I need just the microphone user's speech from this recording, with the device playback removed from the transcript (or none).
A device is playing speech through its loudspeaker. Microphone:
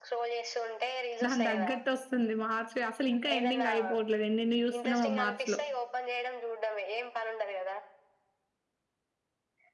దాని దగ్గట్ వస్తుంది. మార్చ్ అసలు ఇంకా ఎండింగ్ అయిపోవట్లేదు. ఎనెన్ని చూస్తున్నామా మార్చ్ లో